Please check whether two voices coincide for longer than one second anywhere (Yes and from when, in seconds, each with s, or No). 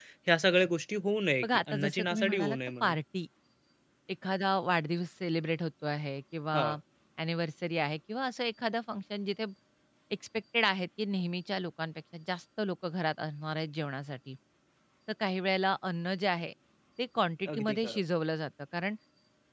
Yes, from 1.4 s